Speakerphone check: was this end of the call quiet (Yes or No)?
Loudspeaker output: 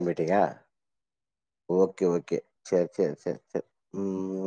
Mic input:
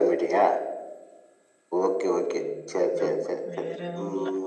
No